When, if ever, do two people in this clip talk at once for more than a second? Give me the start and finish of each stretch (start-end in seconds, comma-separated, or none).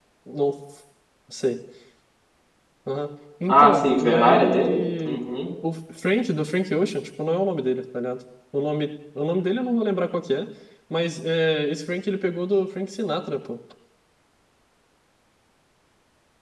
3.5-5.2